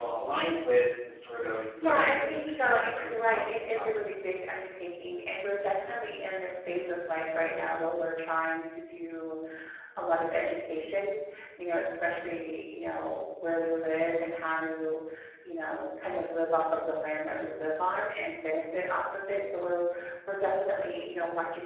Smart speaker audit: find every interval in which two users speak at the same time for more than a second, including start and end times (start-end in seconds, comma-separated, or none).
1.8-3.9